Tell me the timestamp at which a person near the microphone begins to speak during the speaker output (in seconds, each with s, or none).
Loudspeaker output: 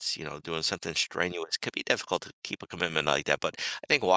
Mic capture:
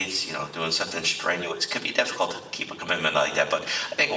none